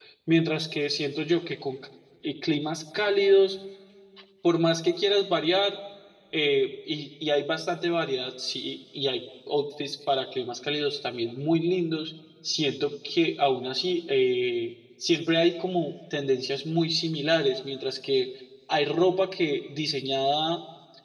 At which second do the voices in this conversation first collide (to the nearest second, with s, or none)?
none